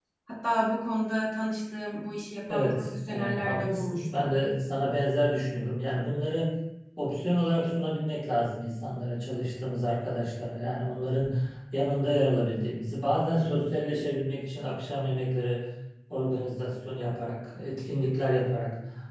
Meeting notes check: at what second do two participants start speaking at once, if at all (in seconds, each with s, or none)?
2.5 s